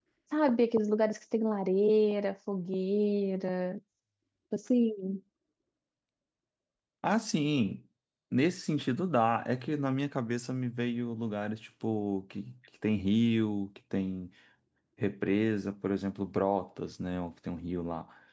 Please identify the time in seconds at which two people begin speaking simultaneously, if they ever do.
none

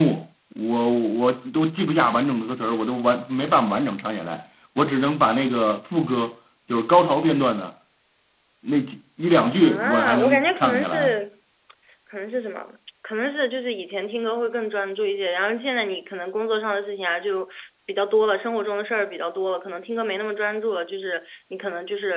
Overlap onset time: 9.6 s

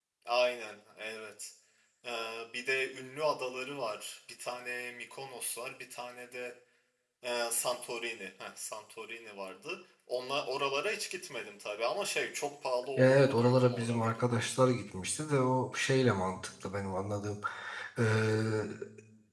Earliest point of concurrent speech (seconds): 13.0 s

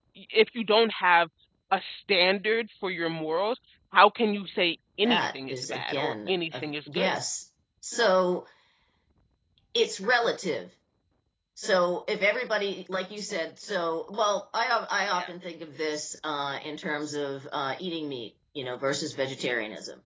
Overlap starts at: 5.0 s

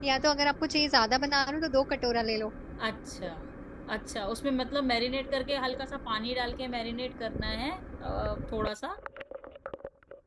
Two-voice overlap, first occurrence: none

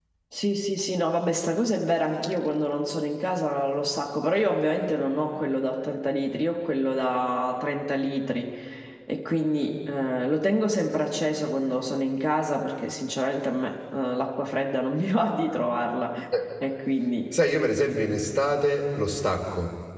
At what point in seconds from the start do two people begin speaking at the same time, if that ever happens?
none

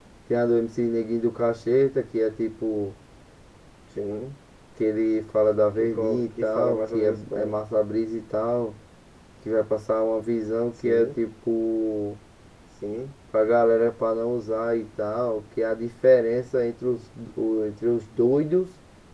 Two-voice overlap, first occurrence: 5.8 s

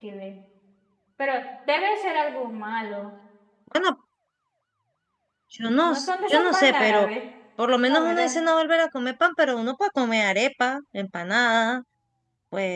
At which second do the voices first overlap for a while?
5.8 s

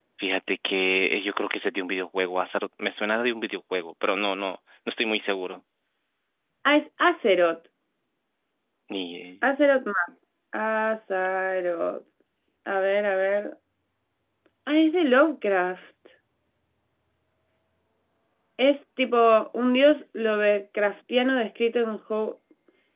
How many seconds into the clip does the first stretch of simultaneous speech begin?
none

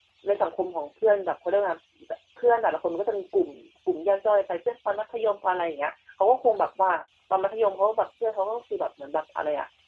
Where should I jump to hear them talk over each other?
none

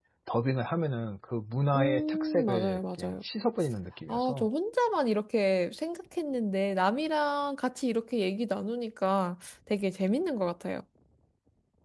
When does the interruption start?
1.7 s

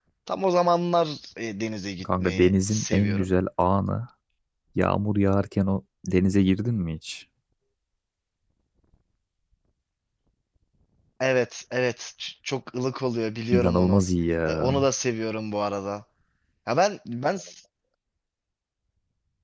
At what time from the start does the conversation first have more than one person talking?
2.0 s

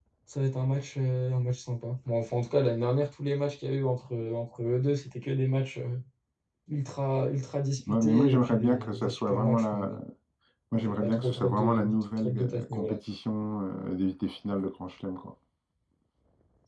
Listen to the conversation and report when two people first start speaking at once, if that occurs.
7.9 s

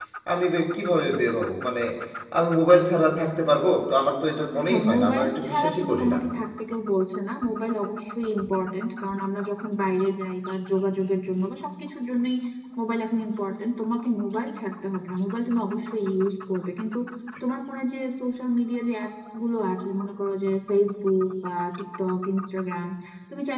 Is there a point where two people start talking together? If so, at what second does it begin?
4.5 s

